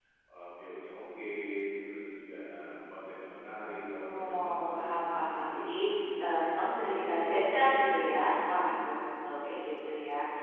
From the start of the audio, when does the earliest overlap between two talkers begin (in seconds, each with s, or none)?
4.0 s